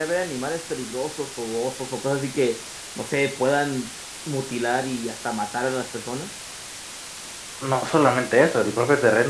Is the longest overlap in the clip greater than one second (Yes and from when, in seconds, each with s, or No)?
No